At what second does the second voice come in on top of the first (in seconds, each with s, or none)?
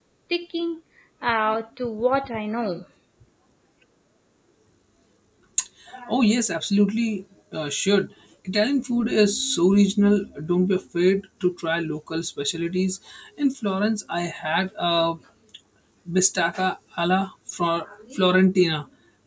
none